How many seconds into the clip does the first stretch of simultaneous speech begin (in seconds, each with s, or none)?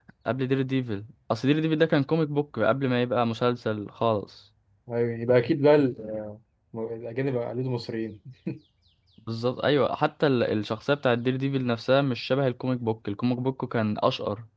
none